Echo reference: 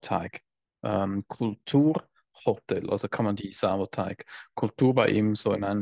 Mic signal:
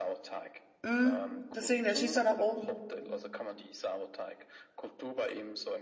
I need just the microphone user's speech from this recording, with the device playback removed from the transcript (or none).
Hm, deswegen, der schießt dann nach oben. Hm,